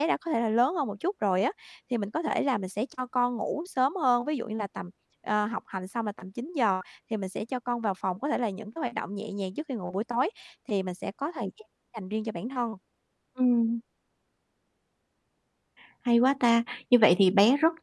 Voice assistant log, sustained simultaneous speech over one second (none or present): none